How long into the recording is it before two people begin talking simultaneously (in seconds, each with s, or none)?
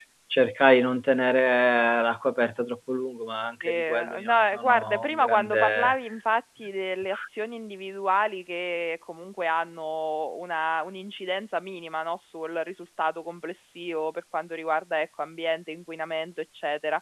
3.6 s